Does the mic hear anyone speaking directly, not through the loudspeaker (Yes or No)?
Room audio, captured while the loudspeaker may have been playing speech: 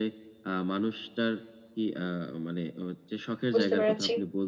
Yes